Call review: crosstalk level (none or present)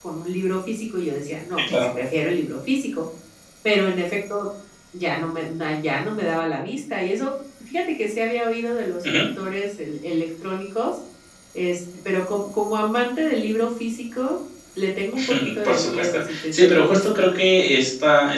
present